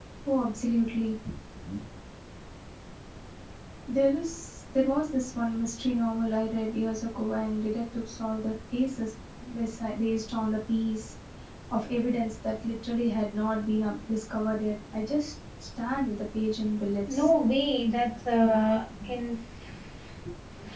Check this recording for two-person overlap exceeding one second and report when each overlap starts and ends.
none

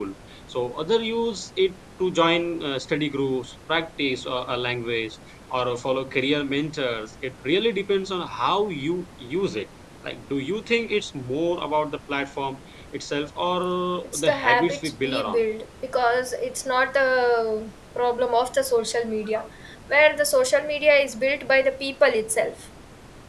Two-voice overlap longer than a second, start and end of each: 14.1-15.4

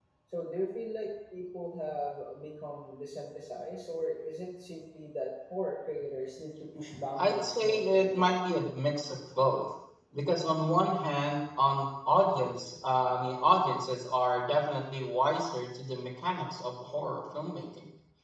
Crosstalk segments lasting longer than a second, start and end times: 7.2-8.4

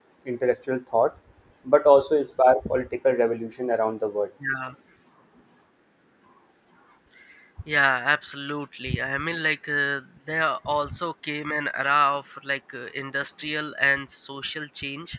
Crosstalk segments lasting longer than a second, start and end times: none

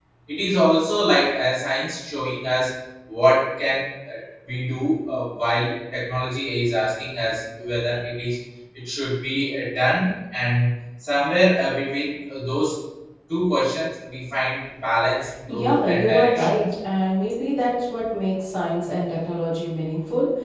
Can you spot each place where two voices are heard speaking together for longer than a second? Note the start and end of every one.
15.5-16.7

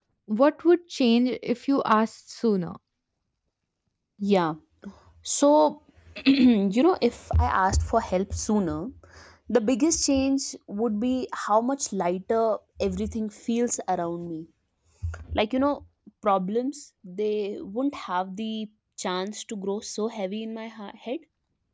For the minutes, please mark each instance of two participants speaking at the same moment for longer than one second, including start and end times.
none

